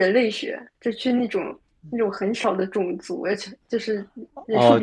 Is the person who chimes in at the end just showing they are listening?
Yes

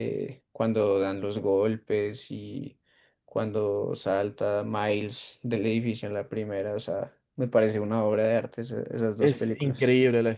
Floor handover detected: Yes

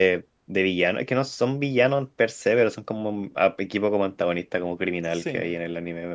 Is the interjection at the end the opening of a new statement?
No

